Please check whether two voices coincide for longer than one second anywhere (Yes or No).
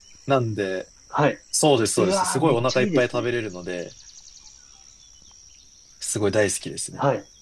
Yes